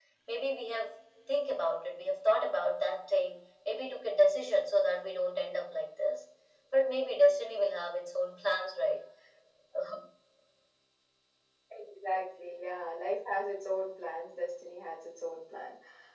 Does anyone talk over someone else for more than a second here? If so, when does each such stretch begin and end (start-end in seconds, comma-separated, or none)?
none